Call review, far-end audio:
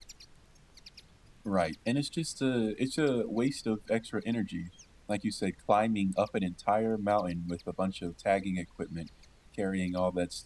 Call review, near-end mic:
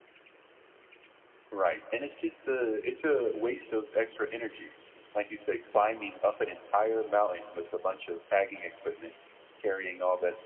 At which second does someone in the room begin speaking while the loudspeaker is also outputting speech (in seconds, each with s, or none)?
none